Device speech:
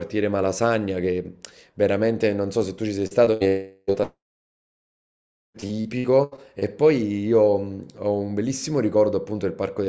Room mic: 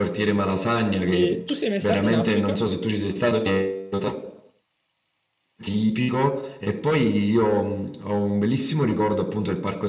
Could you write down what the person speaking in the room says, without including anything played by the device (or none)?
E tu sei mai stato in Africa?